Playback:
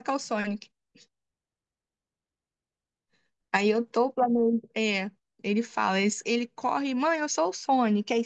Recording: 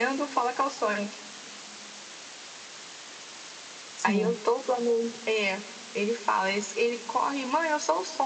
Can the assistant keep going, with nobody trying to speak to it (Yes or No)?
No